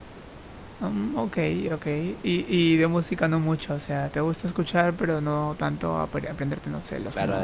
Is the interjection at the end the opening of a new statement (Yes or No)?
Yes